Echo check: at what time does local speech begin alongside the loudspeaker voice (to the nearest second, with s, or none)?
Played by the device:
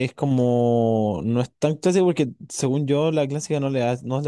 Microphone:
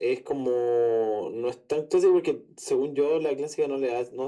none